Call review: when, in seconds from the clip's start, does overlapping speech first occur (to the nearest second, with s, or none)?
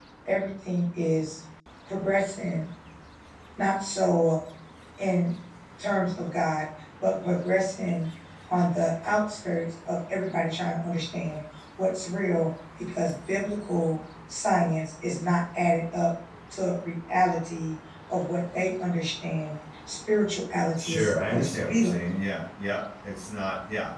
21 s